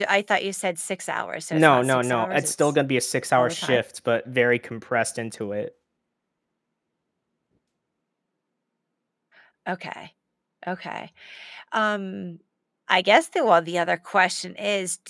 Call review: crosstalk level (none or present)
present